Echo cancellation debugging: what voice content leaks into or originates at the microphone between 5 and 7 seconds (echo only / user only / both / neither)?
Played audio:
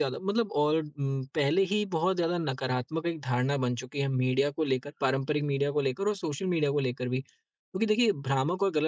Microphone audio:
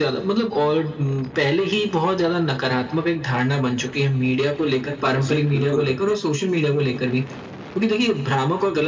both